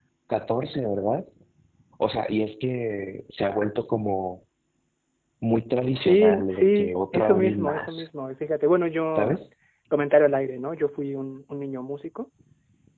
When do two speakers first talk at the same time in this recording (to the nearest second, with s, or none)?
6 s